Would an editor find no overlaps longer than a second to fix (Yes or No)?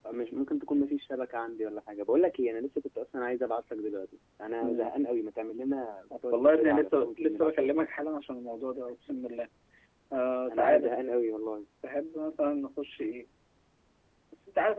No